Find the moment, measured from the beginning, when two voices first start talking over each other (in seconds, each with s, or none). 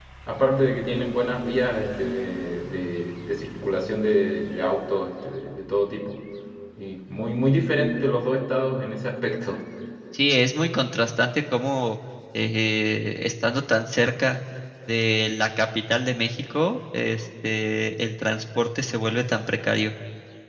none